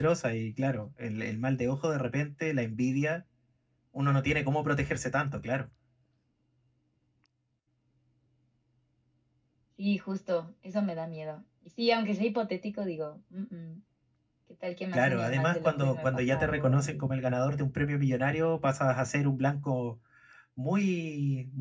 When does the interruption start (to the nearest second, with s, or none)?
15 s